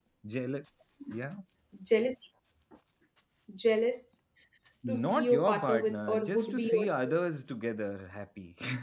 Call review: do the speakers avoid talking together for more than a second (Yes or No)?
No